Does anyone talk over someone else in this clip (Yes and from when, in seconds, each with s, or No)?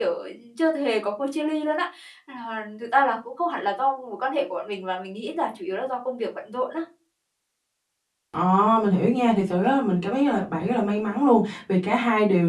No